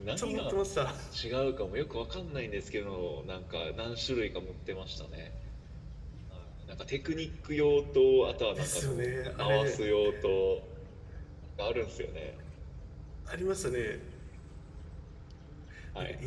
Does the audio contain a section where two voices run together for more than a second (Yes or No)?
Yes